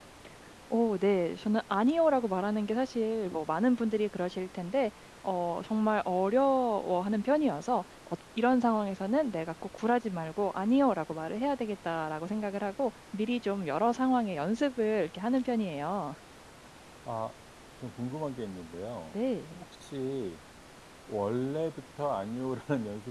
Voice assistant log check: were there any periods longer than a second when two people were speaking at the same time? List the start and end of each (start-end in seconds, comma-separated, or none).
none